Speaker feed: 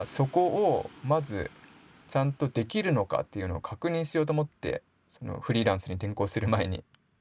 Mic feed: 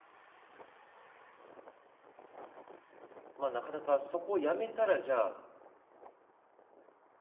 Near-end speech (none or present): present